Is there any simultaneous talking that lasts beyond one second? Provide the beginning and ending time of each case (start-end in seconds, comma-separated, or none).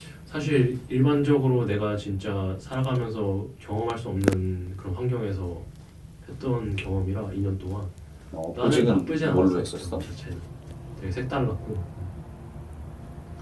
8.6-10.0